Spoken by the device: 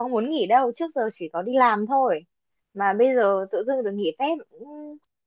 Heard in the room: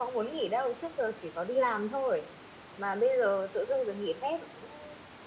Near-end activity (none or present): none